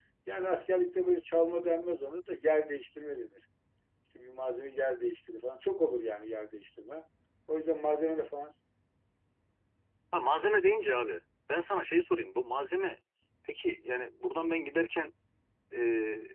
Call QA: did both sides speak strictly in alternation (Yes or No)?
Yes